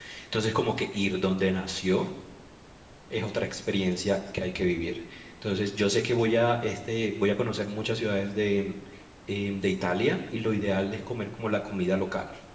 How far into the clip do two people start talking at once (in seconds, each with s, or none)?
none